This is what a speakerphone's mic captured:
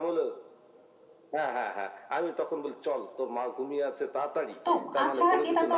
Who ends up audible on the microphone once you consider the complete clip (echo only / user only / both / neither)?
both